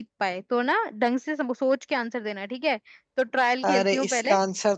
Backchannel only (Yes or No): No